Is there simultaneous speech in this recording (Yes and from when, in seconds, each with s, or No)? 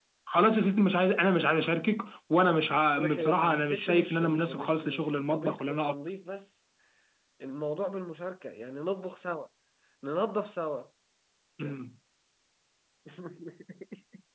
Yes, from 3.0 s